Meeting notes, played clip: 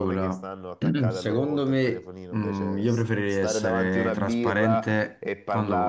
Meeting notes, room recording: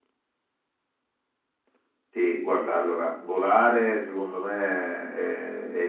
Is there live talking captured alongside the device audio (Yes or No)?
Yes